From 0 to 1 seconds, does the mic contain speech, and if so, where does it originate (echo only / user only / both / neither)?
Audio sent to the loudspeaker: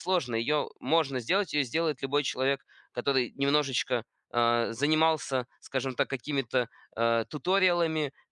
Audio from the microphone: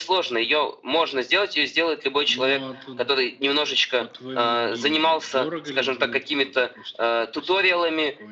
echo only